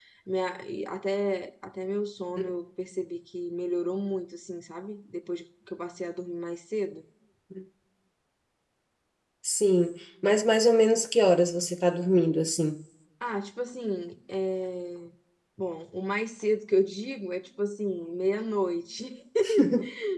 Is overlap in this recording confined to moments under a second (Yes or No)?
Yes